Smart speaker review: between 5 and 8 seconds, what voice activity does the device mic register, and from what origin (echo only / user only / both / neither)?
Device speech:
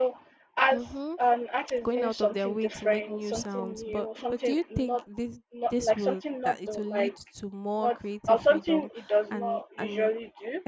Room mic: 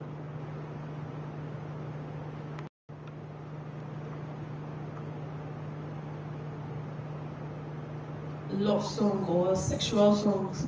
neither